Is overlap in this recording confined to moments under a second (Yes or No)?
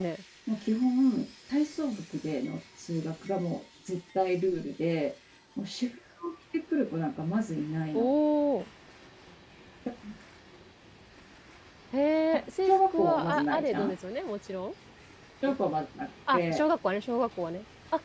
No